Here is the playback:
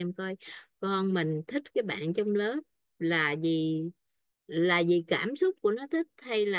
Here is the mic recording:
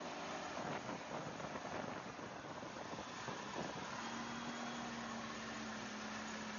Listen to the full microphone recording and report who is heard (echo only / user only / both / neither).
neither